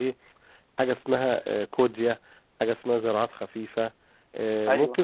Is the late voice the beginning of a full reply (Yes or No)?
No